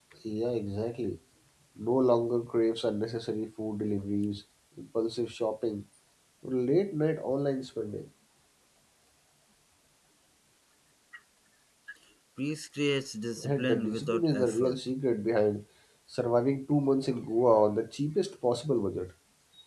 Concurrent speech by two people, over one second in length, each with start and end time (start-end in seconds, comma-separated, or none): 13.4-14.8